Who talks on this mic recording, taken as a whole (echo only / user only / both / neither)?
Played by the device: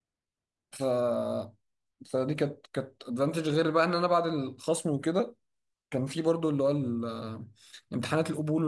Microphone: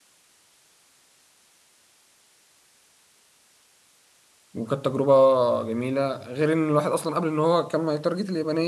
user only